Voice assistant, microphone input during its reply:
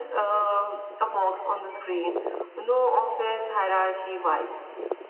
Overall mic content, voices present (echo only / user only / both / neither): echo only